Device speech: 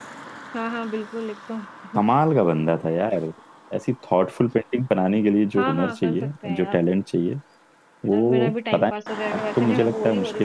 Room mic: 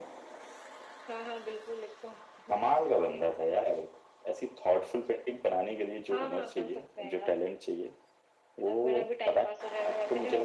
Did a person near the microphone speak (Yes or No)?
No